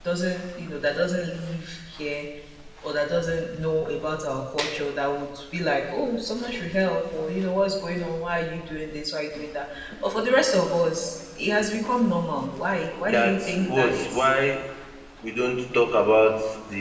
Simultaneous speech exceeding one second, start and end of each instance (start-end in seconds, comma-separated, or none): 13.1-14.3